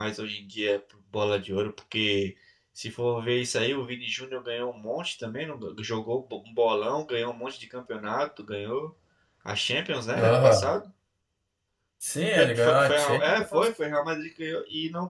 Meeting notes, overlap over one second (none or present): present